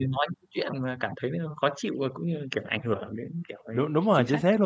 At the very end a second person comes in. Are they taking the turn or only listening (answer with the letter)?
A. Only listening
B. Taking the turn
B